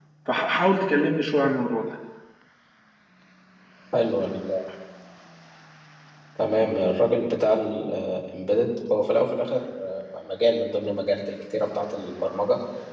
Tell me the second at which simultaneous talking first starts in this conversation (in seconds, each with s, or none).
none